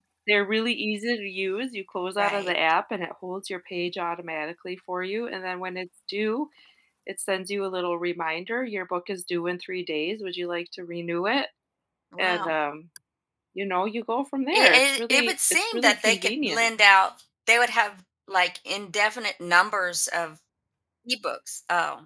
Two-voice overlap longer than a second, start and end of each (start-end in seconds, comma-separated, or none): 14.5-16.7